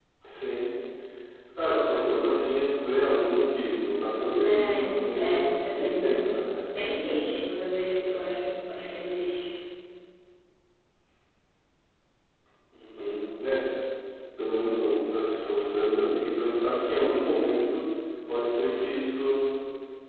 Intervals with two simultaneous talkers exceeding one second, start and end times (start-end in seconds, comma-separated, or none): 5.2-6.5